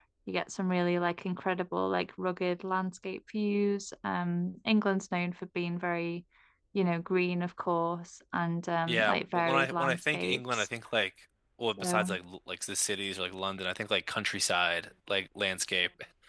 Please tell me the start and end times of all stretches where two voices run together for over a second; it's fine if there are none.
8.9-10.7

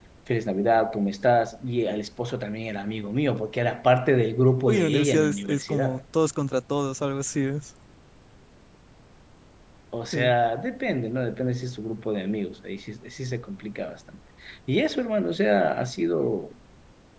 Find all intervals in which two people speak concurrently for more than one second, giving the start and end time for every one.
4.7-6.0

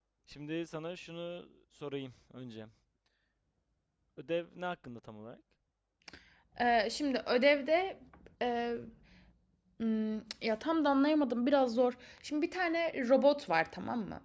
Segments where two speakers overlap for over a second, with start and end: none

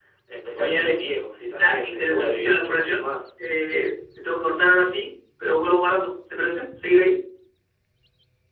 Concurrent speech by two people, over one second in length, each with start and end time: 1.5-3.1

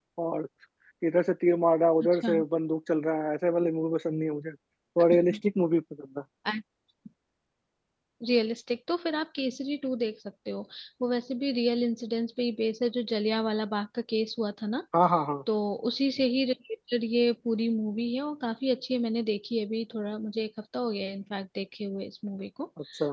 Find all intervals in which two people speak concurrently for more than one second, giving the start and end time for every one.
none

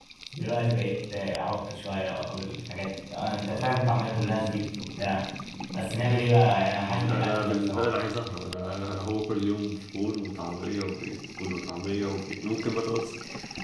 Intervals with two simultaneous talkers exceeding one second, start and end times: 6.7-7.9

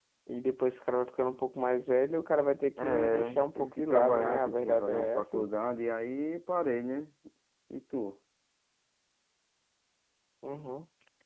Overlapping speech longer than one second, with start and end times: 2.8-5.5

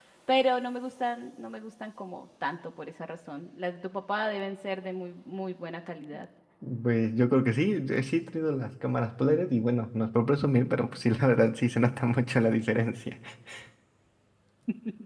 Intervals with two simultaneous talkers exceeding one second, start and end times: none

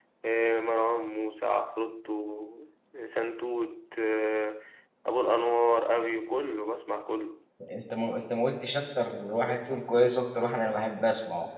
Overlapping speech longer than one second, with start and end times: none

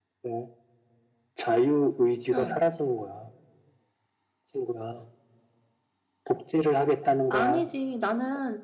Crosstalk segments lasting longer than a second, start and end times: none

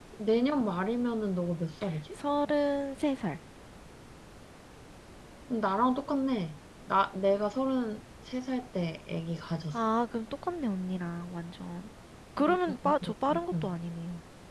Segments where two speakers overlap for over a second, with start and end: 12.4-13.7

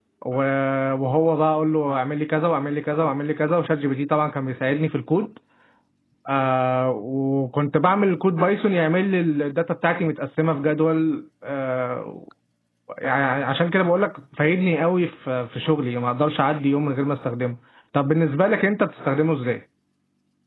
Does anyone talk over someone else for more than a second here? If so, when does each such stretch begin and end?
none

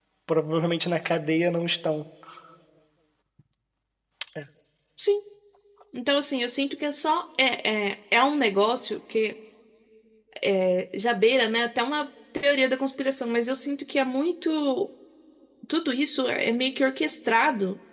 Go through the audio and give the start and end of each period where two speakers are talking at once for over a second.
none

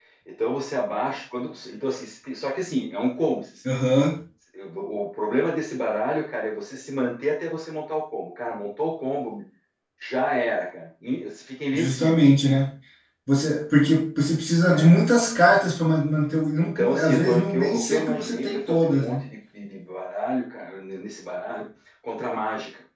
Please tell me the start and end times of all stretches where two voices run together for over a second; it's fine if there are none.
16.6-19.2

